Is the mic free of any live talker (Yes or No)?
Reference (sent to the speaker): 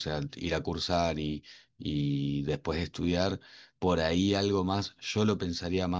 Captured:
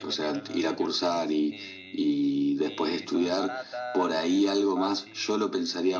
No